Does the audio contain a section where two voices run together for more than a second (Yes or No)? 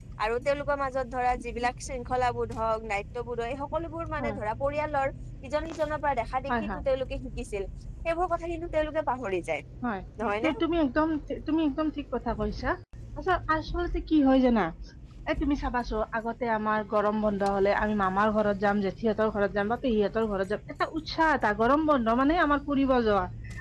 No